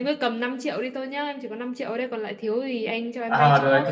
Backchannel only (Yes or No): No